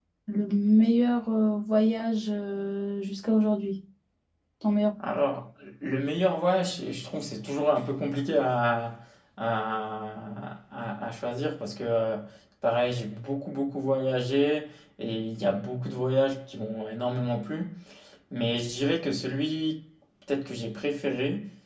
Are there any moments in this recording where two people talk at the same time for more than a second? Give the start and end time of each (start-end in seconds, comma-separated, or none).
none